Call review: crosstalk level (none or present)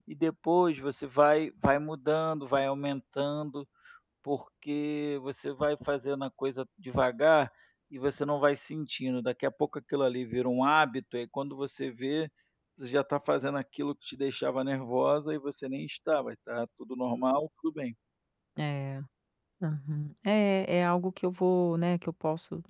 none